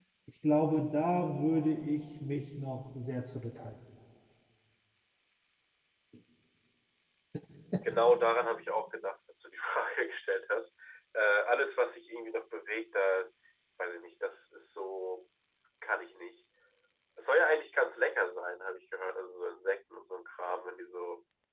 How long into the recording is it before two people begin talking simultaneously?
none

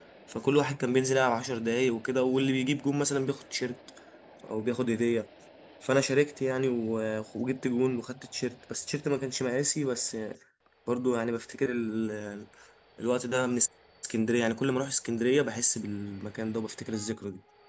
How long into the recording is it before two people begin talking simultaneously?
none

